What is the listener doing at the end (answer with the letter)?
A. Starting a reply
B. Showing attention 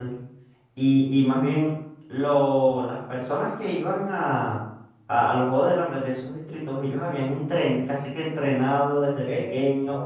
B